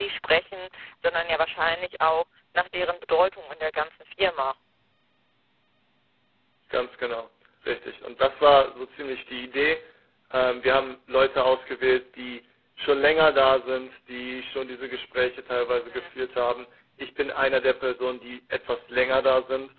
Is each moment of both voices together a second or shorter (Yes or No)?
Yes